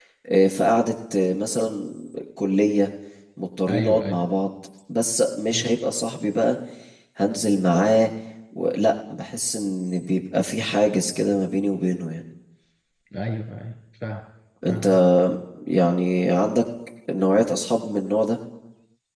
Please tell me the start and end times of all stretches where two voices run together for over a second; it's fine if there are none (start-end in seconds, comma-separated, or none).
none